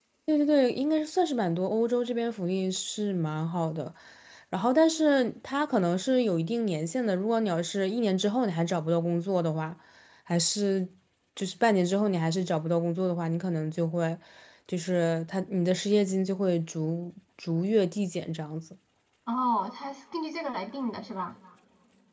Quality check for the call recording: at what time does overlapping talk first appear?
none

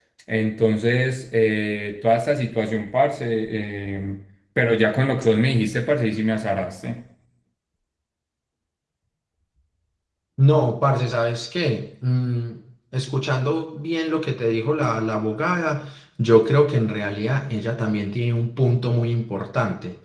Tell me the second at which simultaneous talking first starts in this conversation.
none

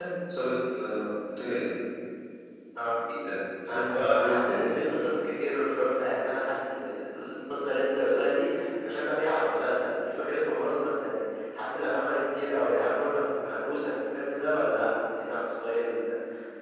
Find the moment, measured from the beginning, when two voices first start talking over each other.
4 s

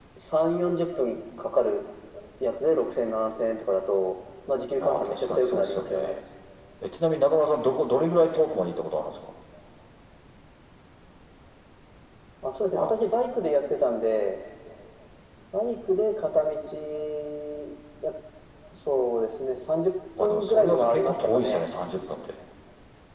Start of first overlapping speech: 5 s

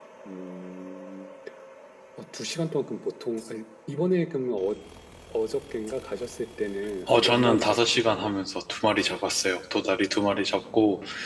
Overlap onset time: 7 s

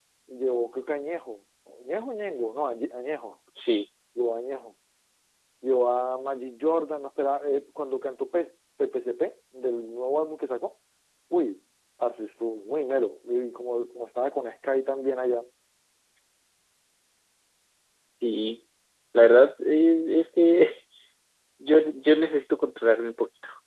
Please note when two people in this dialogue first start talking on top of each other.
none

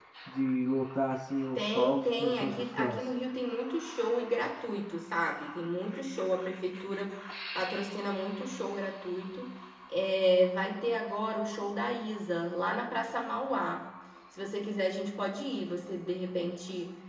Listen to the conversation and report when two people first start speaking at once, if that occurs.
2 s

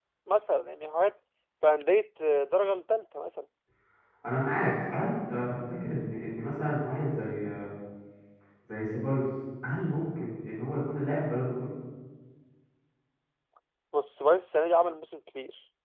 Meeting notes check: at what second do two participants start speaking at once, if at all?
none

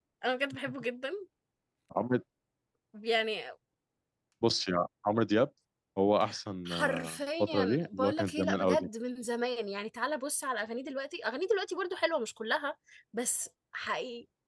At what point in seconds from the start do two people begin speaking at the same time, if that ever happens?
7 s

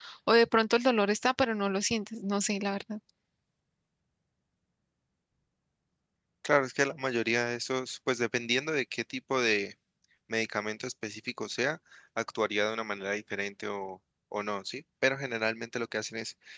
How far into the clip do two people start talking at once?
none

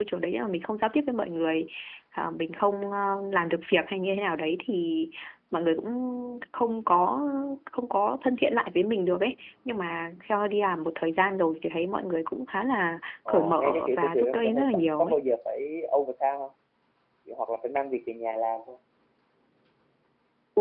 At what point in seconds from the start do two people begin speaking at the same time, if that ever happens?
13 s

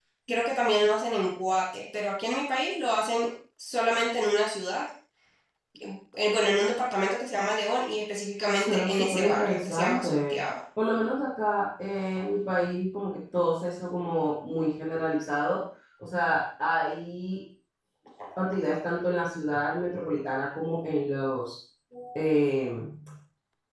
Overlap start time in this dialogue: 9 s

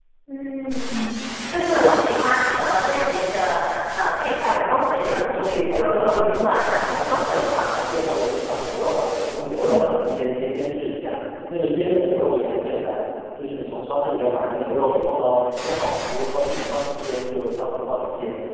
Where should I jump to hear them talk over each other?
5 s

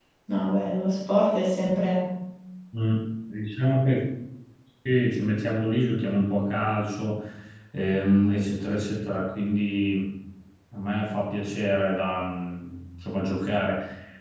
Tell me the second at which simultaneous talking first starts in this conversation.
none

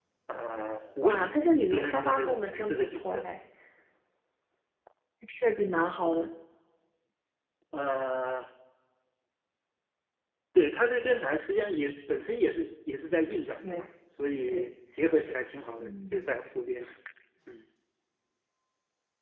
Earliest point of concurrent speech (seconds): 1 s

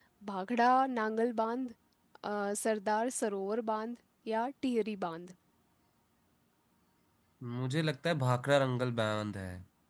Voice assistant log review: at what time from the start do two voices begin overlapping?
none

